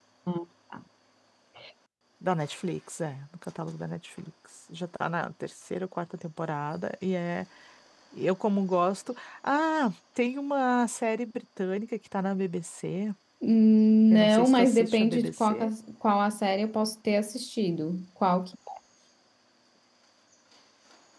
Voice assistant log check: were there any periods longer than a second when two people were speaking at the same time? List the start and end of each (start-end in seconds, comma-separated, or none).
14.1-15.7